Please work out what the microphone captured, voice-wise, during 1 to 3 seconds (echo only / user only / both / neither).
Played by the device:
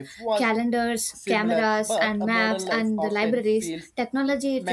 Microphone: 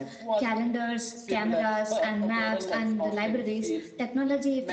echo only